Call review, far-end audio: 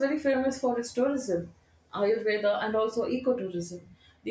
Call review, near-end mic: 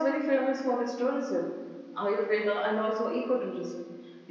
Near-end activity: none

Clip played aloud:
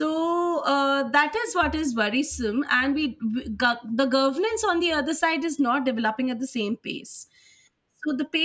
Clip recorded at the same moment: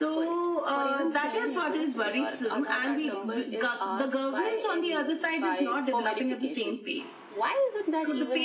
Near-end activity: present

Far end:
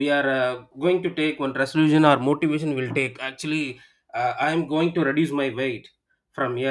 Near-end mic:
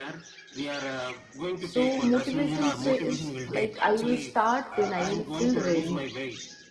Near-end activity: present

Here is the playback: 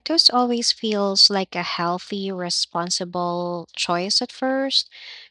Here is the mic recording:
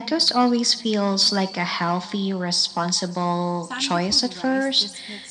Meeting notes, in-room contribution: present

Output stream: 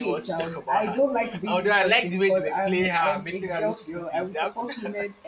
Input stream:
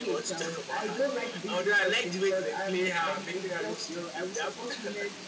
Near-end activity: none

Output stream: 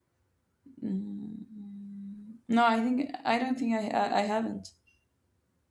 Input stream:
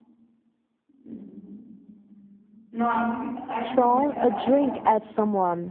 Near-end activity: present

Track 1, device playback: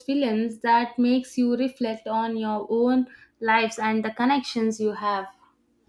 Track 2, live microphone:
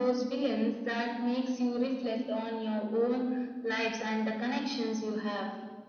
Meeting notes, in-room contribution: none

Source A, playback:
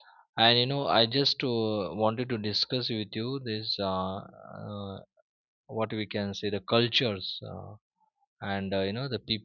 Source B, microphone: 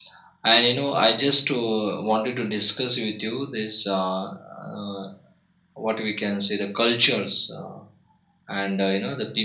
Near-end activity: none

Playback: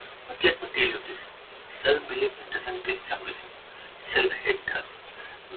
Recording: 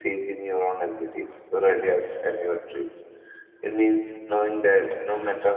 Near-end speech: present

